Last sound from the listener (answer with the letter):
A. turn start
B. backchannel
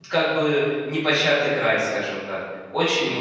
B